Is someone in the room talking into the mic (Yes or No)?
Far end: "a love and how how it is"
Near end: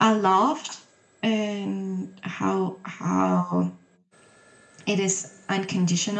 No